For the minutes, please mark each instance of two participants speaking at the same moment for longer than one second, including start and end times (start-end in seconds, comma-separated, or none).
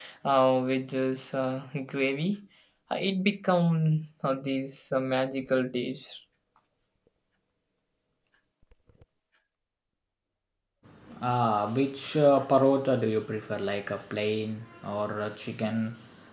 none